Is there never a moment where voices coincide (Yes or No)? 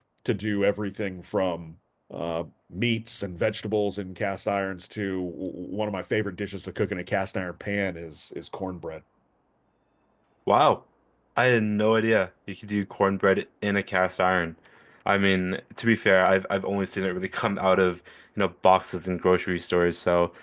Yes